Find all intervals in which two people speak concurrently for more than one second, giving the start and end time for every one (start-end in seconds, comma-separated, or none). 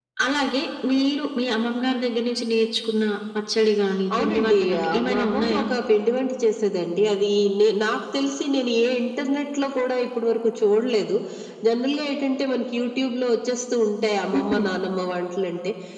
4.2-5.6